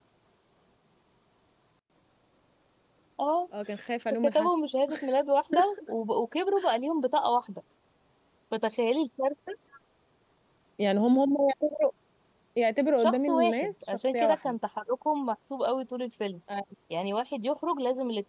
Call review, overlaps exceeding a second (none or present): present